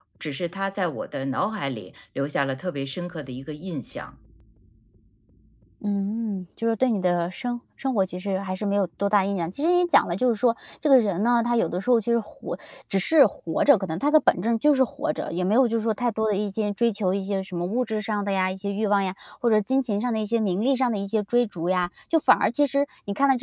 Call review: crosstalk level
none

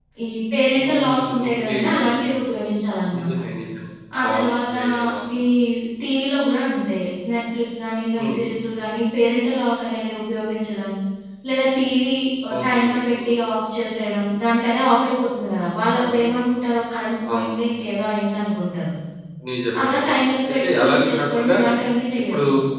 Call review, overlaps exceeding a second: present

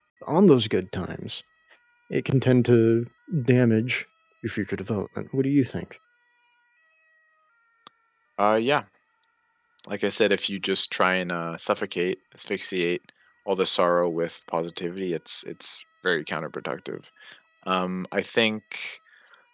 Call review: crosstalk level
none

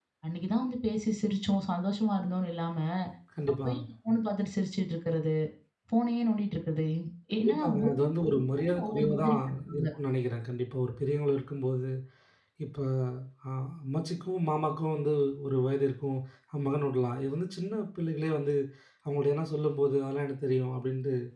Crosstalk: present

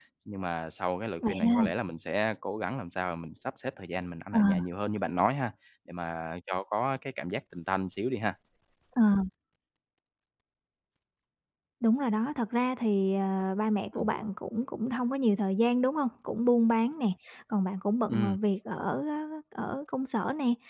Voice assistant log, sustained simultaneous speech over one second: none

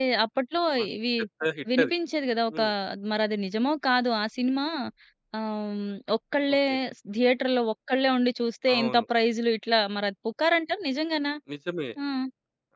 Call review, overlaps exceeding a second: none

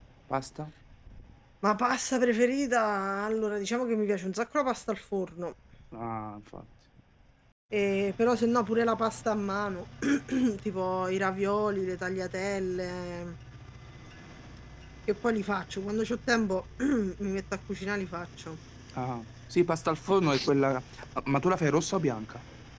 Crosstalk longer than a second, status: none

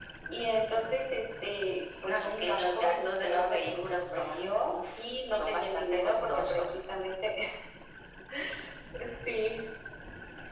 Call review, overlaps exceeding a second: present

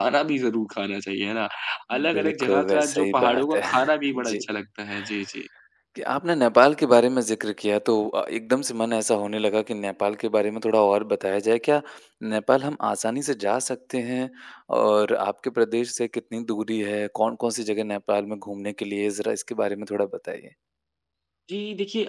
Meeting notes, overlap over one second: present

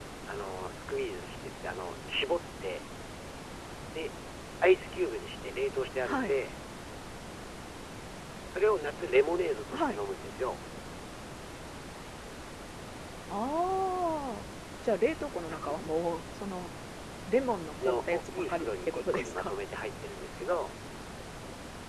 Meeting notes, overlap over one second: present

